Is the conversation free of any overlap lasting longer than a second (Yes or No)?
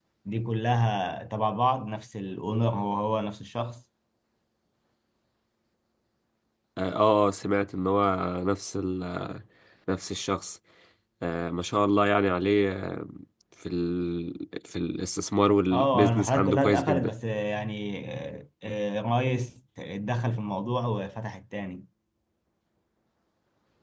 No